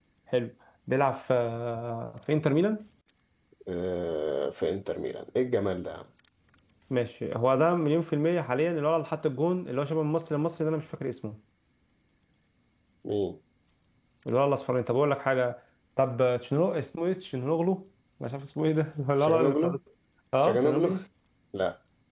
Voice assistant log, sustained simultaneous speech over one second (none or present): none